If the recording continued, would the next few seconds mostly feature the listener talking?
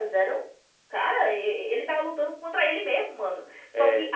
No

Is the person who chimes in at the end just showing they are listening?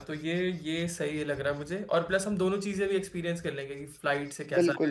No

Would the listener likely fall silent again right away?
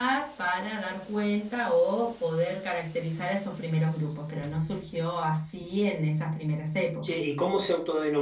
No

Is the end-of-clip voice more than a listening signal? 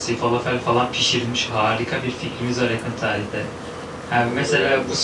No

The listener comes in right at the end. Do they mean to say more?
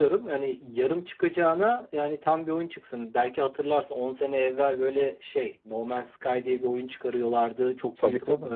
No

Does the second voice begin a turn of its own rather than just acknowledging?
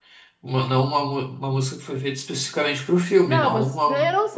Yes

